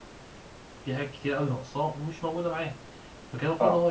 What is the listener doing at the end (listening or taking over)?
listening